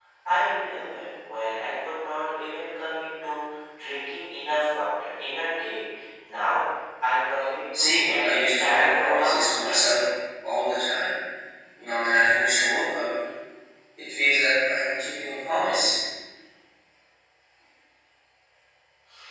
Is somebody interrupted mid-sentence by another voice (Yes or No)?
Yes